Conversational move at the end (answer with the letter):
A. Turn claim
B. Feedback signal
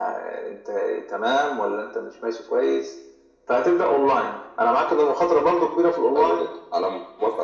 A